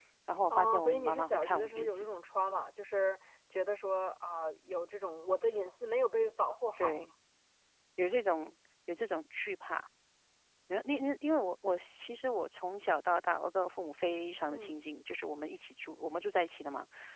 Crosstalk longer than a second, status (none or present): present